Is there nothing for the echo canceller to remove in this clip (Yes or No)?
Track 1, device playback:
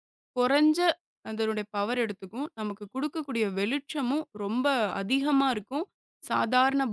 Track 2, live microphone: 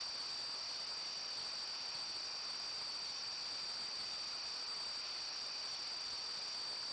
Yes